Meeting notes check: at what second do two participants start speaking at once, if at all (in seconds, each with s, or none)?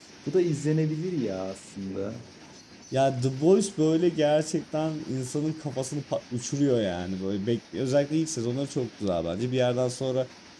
none